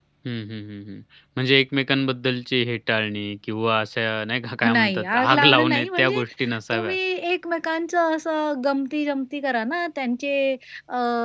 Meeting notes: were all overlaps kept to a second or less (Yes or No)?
No